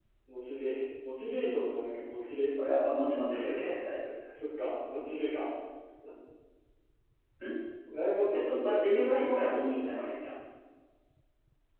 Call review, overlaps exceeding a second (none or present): present